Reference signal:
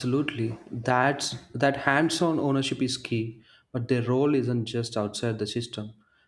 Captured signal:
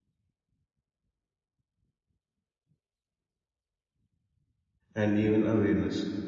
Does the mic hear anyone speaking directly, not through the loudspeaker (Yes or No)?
Yes